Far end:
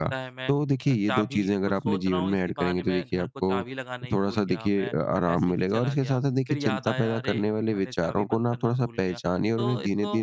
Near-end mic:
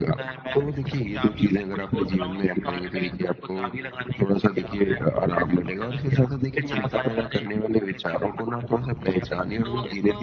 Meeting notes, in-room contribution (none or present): none